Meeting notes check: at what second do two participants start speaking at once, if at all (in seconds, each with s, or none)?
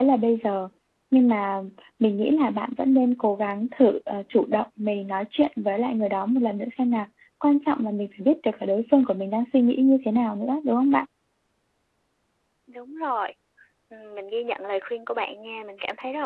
none